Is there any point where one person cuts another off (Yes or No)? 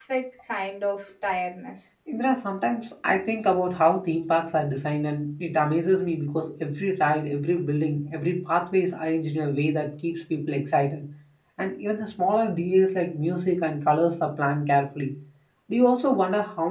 No